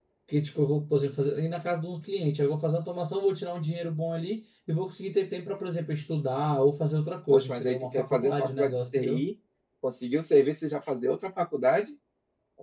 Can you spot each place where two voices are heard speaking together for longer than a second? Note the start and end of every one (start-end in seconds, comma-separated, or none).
7.3-9.2